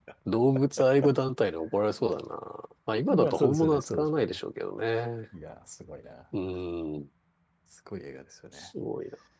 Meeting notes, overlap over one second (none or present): present